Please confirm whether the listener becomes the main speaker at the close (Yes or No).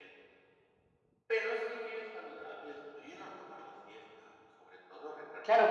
Yes